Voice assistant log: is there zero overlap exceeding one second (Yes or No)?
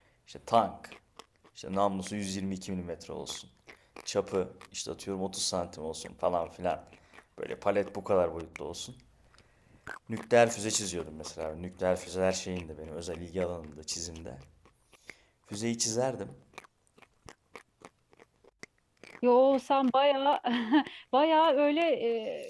Yes